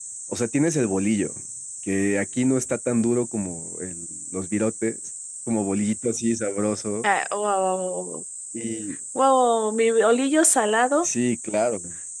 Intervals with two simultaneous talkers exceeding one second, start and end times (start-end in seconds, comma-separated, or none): none